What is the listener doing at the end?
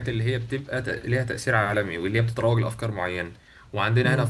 listening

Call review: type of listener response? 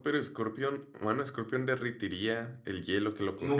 taking over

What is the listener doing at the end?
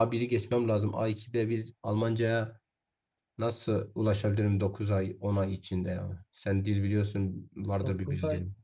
taking over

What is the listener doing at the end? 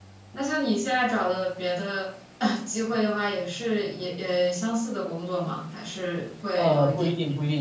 taking over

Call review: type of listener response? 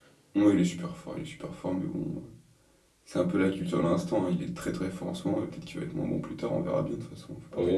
taking over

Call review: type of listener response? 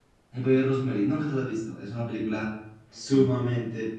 listening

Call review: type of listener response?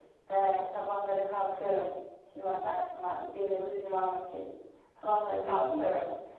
listening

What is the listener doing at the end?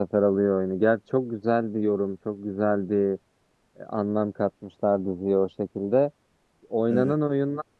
listening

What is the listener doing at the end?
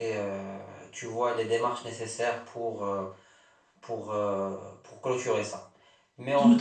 taking over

